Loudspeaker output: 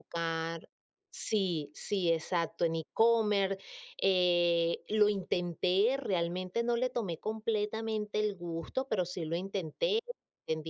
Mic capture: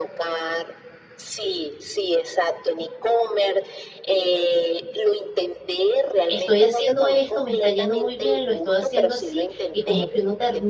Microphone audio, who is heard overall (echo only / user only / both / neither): both